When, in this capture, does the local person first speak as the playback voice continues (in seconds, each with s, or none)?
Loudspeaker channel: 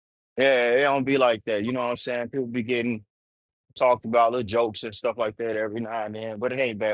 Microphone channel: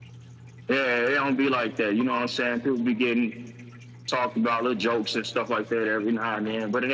none